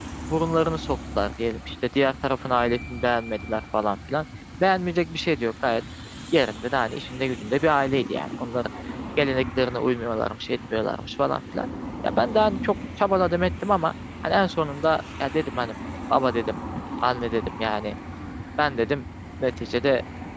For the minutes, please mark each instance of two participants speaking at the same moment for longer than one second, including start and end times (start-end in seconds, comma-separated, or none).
none